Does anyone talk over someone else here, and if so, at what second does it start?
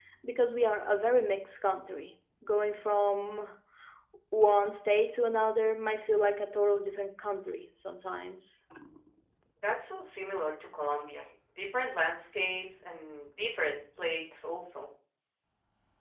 none

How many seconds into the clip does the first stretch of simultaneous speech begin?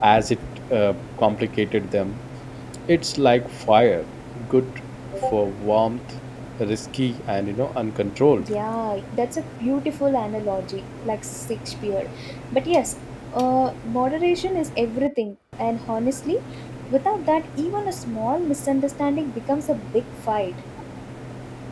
none

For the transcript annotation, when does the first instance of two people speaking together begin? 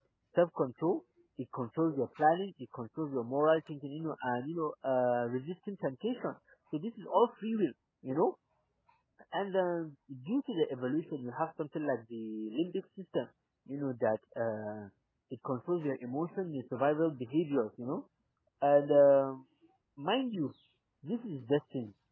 none

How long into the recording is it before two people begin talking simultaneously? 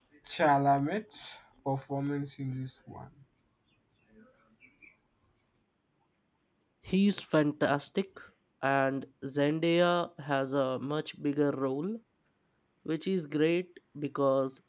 none

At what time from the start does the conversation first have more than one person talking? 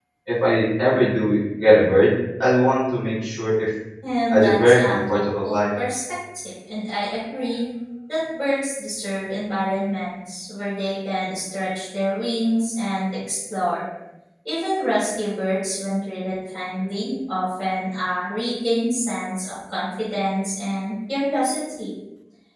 4.3 s

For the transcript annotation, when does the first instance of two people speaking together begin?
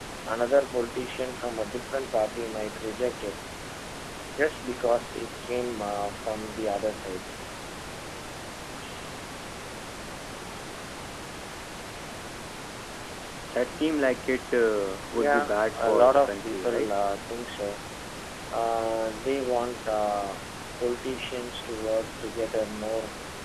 15.1 s

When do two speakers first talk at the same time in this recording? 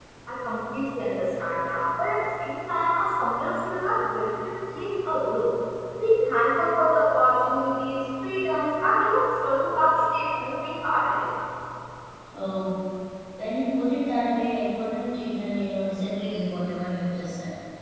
none

